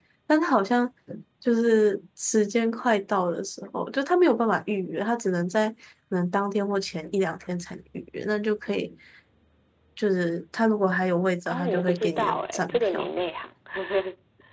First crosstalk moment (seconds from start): 11.5 s

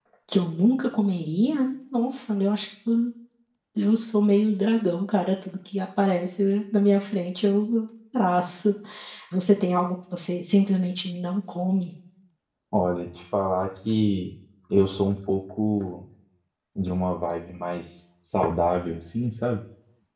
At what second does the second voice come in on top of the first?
none

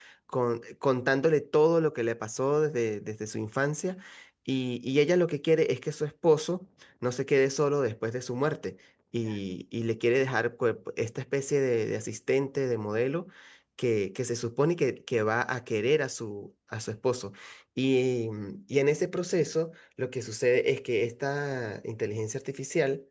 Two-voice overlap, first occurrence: none

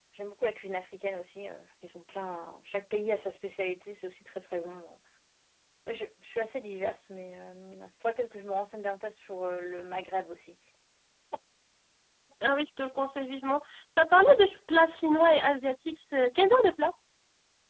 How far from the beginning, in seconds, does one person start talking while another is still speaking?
none

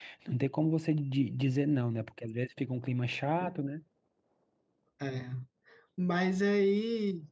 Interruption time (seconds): none

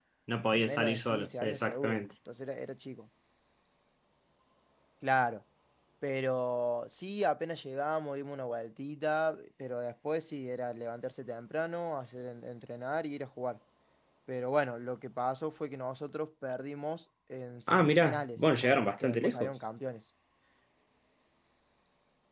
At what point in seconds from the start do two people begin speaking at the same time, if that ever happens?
0.5 s

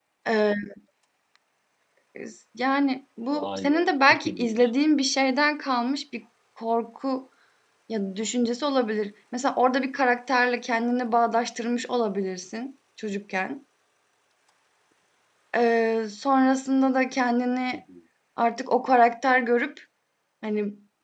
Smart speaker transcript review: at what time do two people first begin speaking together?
3.3 s

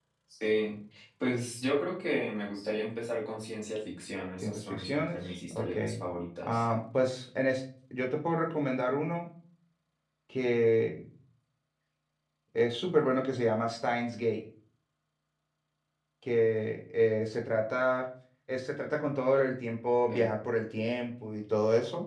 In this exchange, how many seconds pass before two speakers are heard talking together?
4.4 s

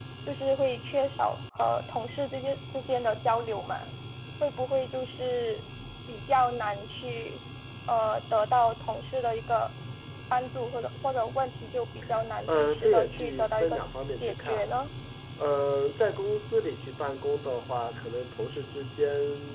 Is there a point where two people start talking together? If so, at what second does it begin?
12.5 s

